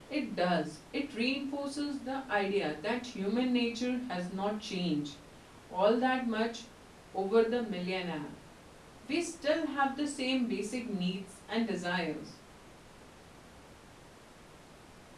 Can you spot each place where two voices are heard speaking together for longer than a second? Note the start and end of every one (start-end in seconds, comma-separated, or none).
none